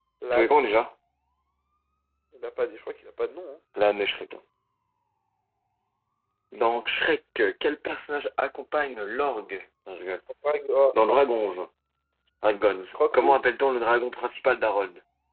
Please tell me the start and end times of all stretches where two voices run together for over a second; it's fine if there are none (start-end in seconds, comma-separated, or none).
none